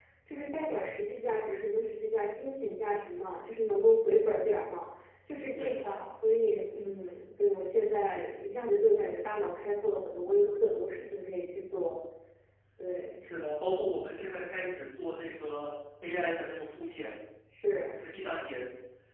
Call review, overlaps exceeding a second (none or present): none